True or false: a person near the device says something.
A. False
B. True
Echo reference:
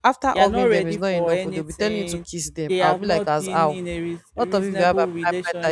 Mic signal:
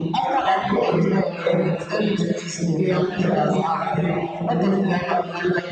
A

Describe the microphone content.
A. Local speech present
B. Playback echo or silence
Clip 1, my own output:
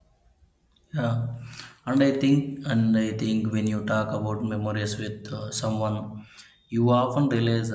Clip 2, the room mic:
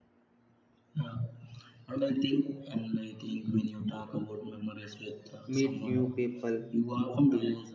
A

